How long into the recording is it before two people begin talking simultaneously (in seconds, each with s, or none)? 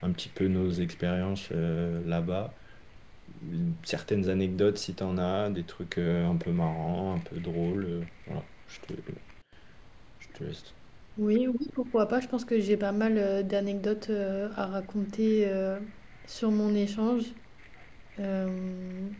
none